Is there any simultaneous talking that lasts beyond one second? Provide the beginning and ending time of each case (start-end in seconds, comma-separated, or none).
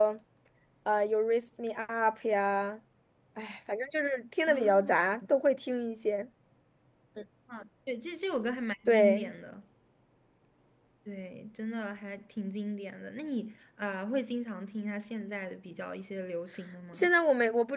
none